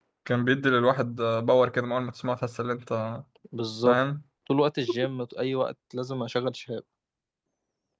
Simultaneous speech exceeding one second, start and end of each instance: none

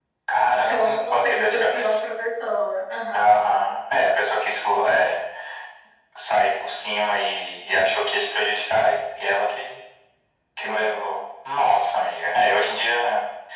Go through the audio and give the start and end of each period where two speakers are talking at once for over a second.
0.5-2.0

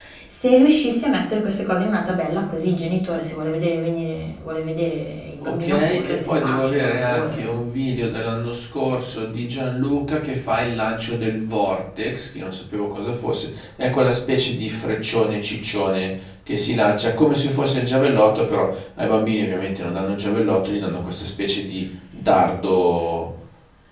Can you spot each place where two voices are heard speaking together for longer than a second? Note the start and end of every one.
5.4-7.5

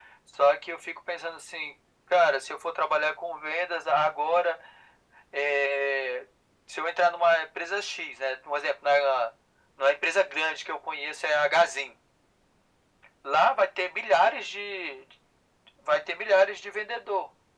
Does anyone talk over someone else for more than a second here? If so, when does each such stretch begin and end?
none

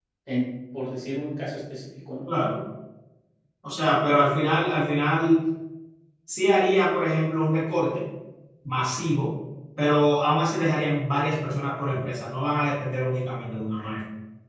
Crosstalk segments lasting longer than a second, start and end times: none

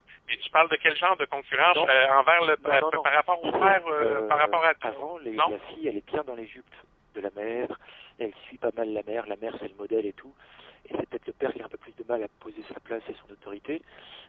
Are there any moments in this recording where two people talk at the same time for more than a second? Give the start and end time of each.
2.6-4.9

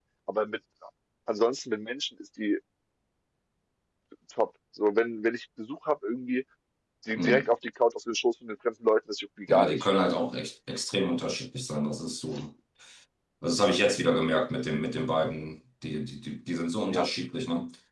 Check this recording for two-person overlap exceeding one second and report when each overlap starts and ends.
none

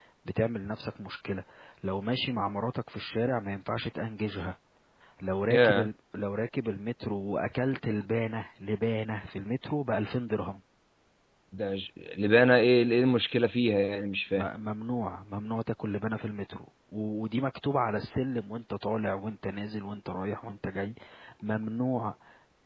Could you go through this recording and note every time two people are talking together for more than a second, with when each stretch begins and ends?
none

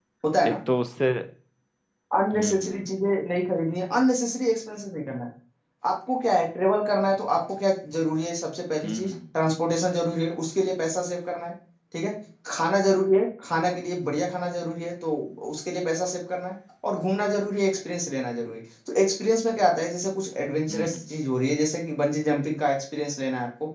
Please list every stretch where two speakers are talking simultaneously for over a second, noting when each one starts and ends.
none

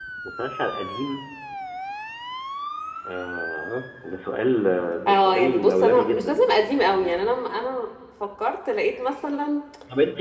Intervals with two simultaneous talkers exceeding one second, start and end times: 5.1-6.4

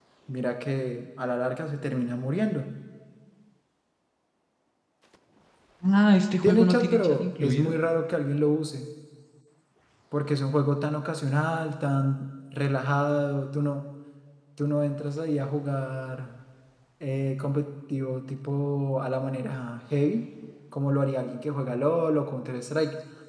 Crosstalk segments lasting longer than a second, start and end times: 6.4-7.7

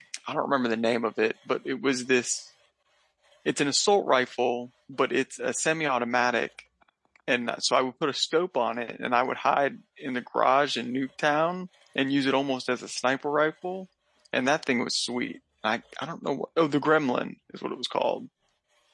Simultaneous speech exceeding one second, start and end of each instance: none

